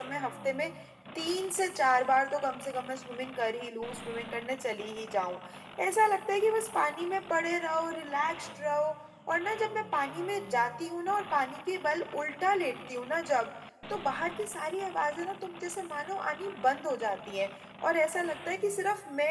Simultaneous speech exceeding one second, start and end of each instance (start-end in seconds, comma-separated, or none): none